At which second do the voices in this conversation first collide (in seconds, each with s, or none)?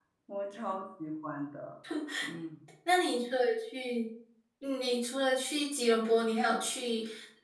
none